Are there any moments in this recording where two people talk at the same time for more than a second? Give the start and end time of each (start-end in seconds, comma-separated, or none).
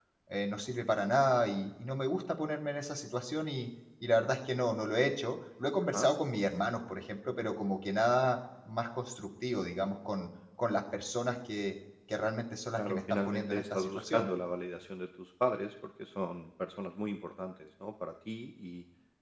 12.8-14.3